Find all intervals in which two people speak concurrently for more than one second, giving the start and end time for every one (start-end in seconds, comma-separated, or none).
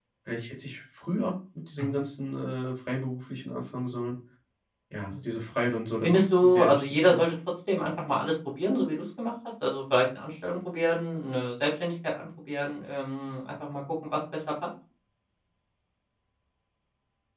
6.0-7.3